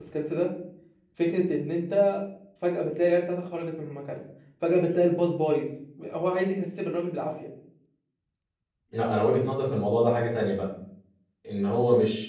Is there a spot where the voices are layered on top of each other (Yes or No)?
No